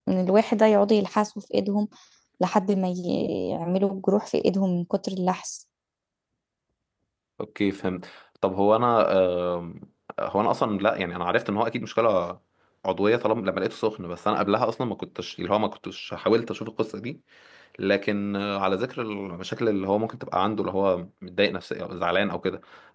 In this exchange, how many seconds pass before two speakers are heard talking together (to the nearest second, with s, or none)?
none